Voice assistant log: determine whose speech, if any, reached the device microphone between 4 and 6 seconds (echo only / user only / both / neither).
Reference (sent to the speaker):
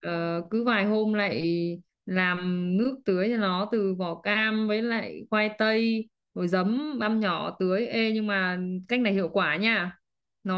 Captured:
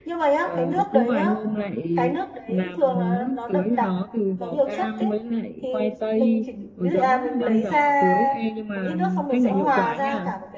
both